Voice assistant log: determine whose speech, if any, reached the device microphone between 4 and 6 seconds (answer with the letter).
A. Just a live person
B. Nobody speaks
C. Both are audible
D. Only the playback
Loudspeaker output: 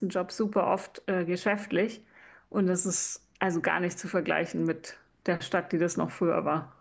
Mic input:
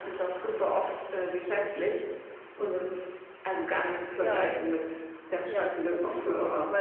C